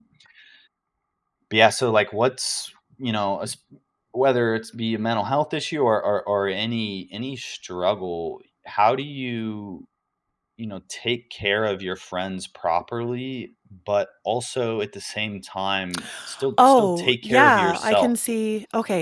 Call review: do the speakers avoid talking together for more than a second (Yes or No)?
No